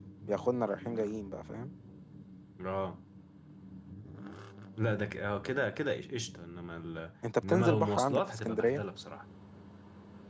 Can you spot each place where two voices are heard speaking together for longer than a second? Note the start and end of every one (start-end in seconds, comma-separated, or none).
7.5-8.8